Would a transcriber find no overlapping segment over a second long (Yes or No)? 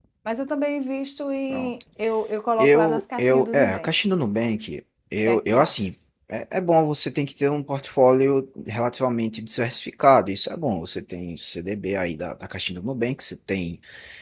No